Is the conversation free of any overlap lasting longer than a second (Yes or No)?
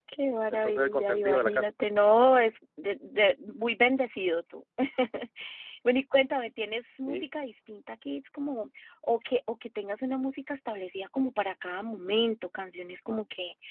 No